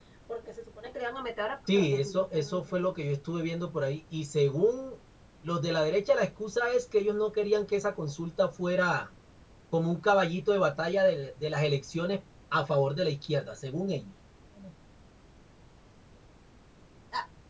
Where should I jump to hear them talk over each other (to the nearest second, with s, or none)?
2 s